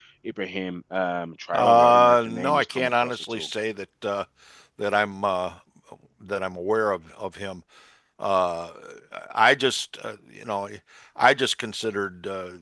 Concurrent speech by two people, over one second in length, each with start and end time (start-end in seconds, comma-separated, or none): 1.5-3.5